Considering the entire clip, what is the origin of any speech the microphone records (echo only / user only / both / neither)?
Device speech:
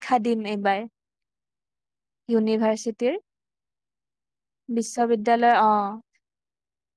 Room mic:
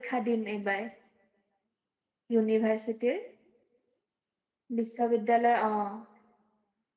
echo only